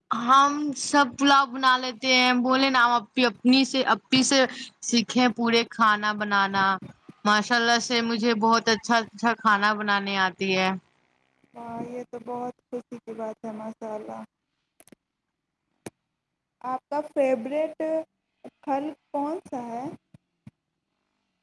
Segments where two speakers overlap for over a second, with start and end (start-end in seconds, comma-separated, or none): none